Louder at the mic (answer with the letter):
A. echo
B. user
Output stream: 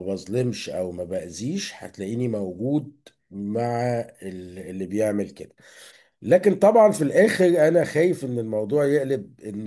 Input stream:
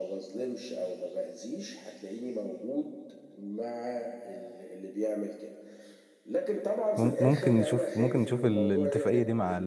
B